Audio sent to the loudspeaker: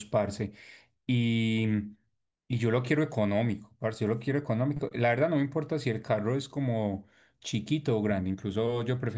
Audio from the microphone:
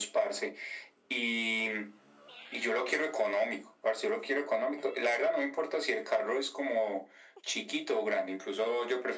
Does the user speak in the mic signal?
No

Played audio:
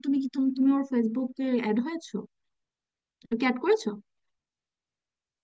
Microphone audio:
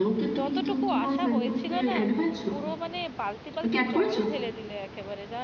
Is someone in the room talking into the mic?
Yes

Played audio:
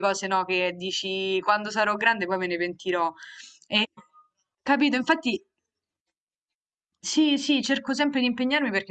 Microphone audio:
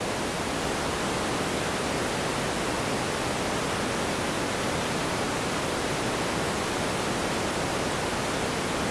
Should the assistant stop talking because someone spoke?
No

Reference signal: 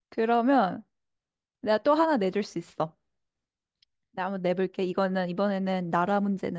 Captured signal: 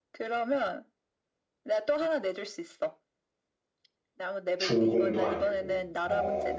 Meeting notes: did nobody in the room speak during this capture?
No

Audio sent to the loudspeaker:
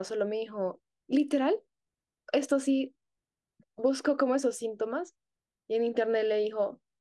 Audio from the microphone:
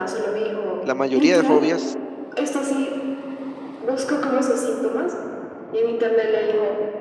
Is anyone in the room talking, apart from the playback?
Yes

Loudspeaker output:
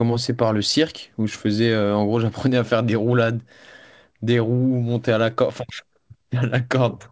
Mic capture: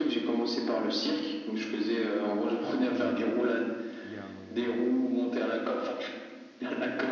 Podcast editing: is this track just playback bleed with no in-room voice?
No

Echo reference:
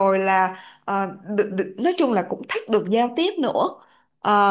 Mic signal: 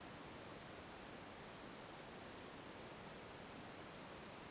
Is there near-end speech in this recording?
No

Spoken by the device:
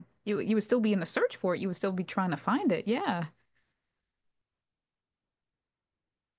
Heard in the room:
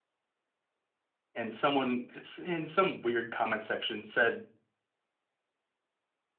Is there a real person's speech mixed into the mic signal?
Yes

